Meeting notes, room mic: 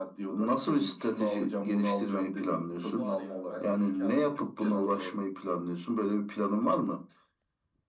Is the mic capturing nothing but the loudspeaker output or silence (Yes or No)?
No